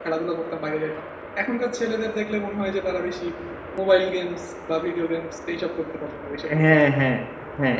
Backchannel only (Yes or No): No